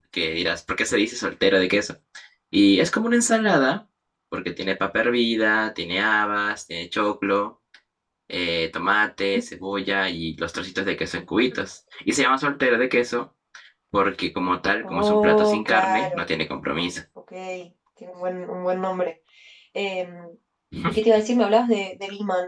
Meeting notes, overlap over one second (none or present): present